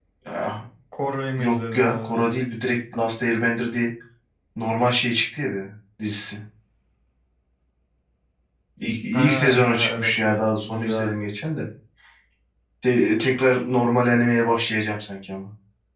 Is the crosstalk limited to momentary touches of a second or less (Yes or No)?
No